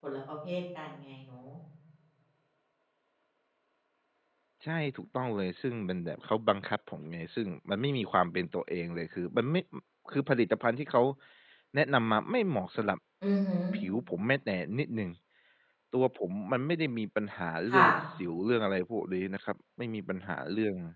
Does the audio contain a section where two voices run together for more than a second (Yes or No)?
No